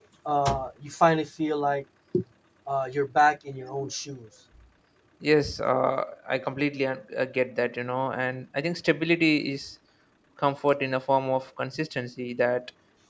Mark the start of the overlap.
none

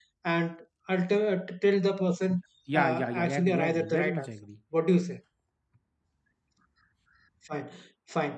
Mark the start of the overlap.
2.7 s

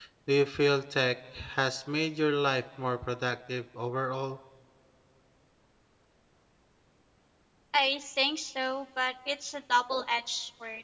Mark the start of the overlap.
none

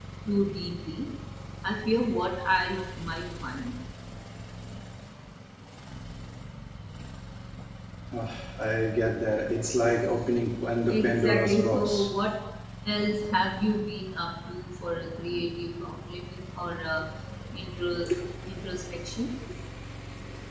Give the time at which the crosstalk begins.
10.9 s

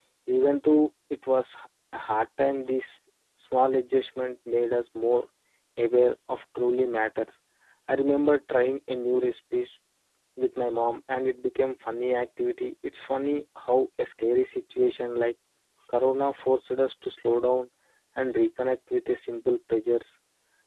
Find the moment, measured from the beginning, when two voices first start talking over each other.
none

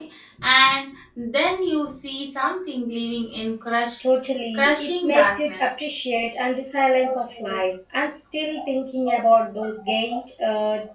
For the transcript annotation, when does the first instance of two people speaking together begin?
4.5 s

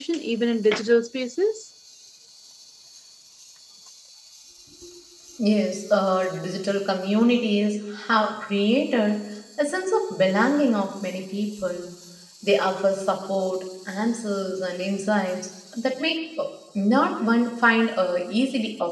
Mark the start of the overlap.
none

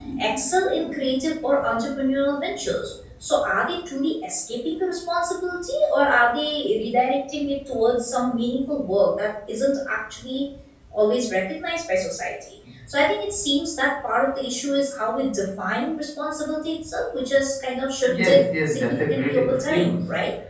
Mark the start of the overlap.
18.1 s

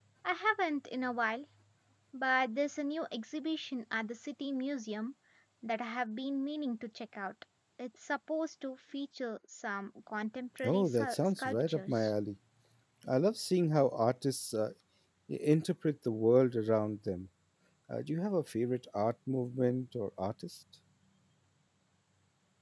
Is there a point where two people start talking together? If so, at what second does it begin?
10.6 s

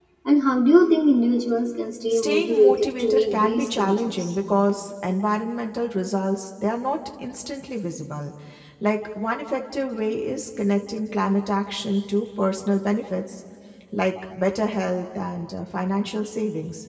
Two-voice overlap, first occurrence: 2.1 s

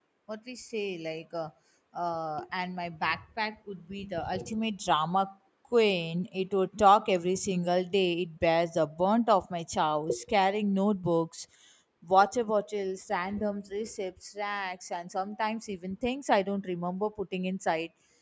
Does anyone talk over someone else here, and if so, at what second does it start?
none

